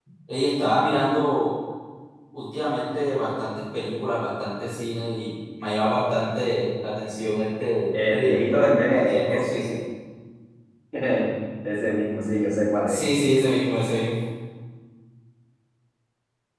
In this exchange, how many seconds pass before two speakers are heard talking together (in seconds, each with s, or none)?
7.9 s